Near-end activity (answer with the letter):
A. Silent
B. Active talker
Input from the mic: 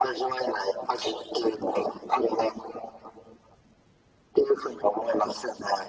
A